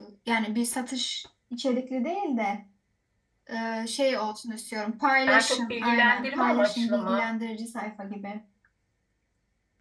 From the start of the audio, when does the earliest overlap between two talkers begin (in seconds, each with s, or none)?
5.3 s